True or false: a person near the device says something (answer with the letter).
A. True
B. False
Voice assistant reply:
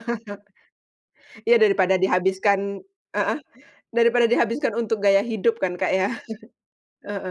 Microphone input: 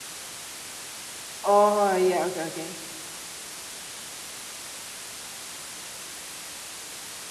A